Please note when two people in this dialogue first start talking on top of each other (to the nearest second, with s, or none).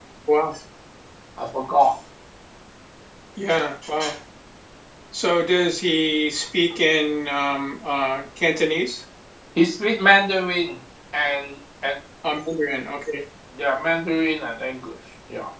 none